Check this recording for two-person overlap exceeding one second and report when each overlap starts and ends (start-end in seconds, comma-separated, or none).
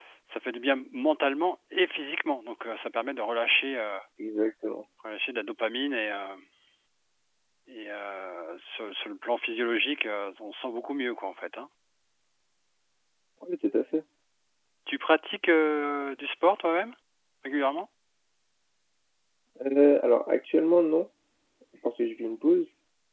none